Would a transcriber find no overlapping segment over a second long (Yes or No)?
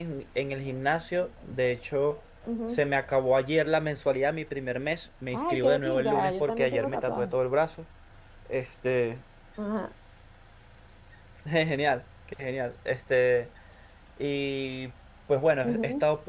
No